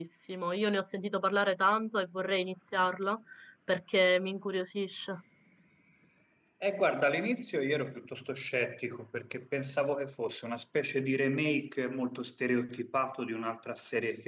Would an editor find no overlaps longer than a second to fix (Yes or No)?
Yes